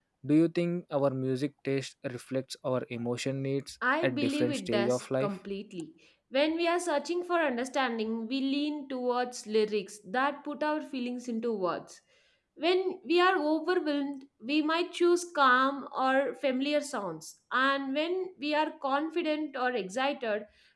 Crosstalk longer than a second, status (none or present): present